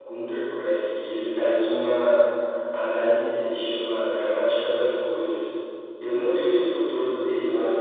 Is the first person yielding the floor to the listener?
No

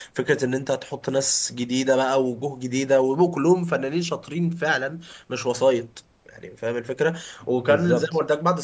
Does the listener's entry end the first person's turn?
No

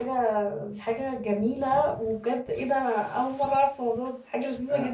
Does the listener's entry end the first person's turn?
Yes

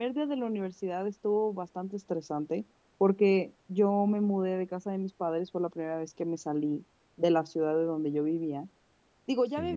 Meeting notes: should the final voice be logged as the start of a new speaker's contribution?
No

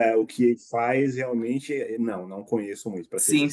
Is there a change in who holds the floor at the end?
Yes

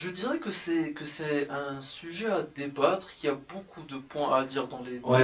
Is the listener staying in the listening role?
No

